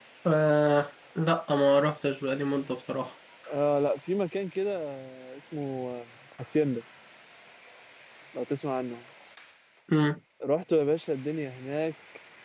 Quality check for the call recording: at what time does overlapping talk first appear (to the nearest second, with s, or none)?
none